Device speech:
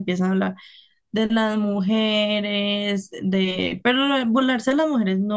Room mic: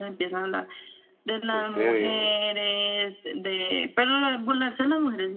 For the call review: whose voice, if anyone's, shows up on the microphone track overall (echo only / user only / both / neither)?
both